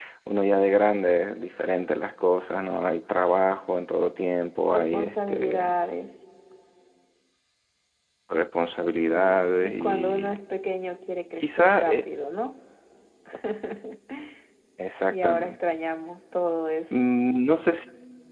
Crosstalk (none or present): present